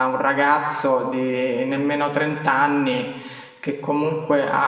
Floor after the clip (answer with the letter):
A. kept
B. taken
A